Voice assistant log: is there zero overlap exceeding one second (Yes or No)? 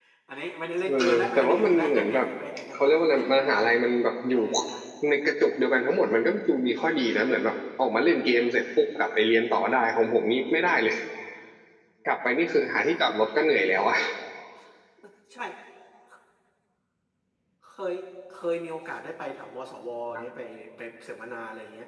No